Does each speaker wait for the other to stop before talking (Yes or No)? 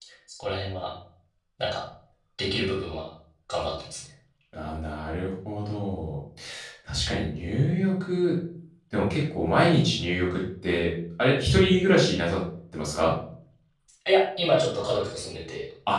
Yes